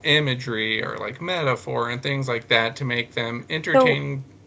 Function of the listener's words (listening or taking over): taking over